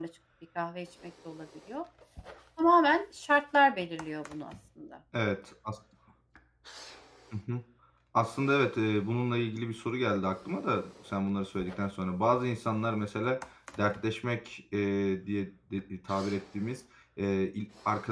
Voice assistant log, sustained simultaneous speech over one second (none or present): none